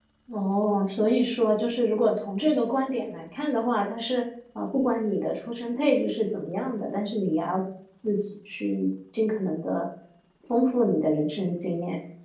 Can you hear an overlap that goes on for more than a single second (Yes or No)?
No